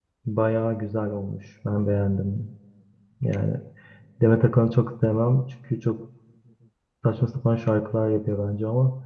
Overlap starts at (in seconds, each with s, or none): none